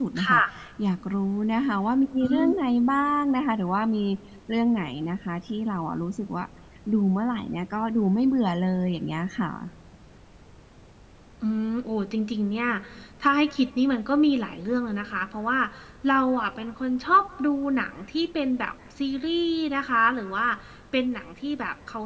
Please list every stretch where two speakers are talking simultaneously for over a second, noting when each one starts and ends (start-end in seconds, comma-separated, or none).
none